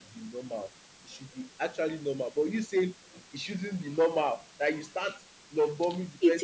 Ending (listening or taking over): taking over